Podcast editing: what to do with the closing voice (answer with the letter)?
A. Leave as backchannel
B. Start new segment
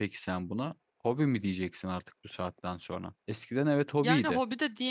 B